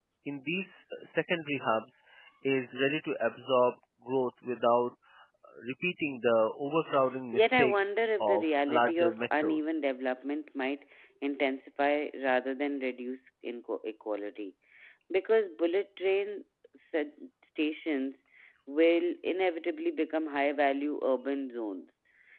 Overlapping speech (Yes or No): Yes